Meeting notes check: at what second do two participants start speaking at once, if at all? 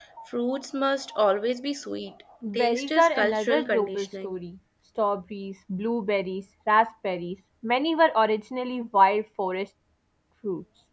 2.4 s

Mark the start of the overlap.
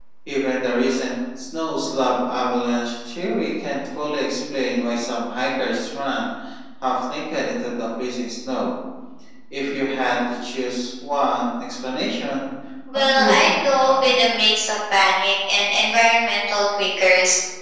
12.9 s

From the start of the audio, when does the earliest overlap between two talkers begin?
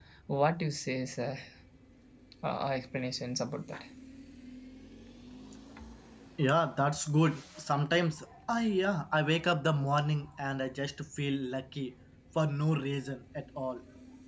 none

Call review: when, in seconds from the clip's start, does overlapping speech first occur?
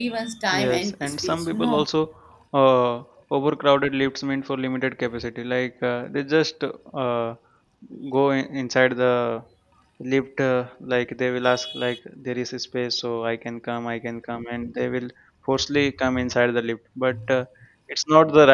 0.5 s

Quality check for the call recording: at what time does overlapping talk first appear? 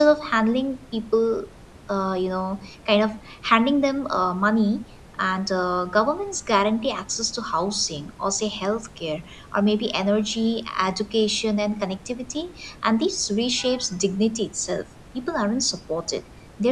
none

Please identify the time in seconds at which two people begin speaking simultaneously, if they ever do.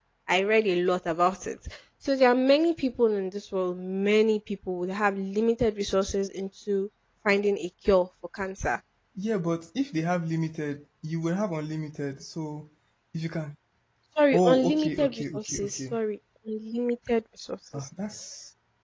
14.3 s

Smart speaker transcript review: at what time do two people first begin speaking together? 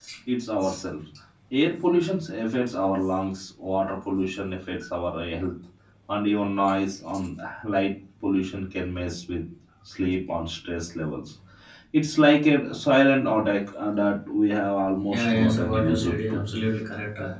15.1 s

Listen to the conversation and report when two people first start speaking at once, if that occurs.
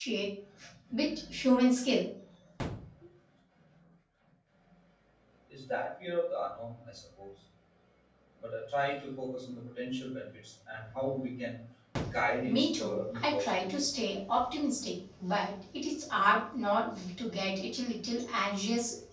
12.4 s

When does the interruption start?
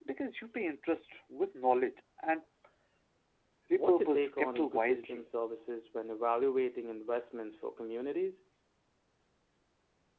3.7 s

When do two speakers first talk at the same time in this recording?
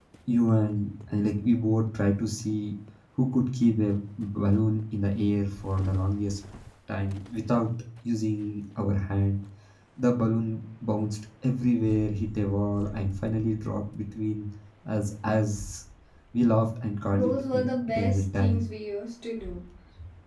17.1 s

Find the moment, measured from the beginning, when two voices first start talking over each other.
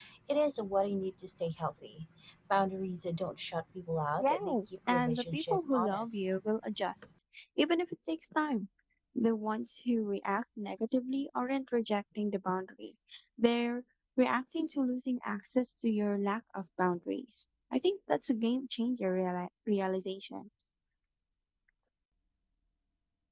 4.2 s

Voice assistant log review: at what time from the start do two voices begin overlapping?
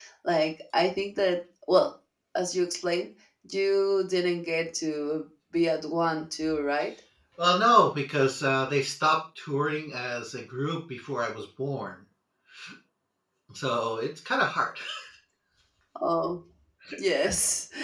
none

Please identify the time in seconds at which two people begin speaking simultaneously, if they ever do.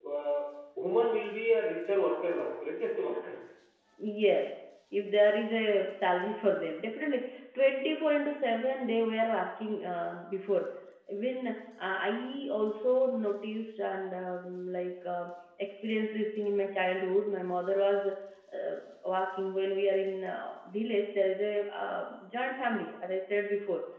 none

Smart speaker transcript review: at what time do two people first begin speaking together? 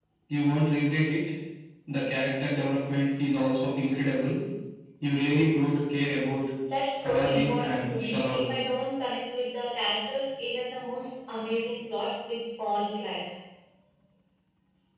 7.0 s

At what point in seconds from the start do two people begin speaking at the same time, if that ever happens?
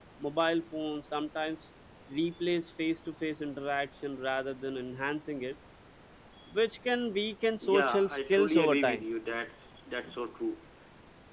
7.6 s

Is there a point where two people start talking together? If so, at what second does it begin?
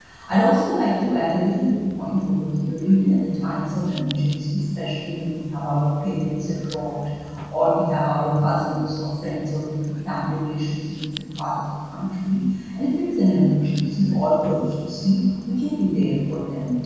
none

